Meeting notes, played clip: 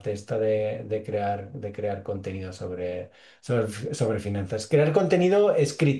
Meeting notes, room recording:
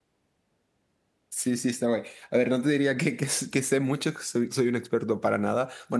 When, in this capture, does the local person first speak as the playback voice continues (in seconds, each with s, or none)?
1.3 s